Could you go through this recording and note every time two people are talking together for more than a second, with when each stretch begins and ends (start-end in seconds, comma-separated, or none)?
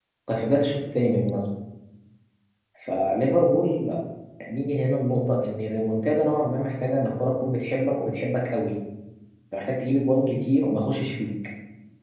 none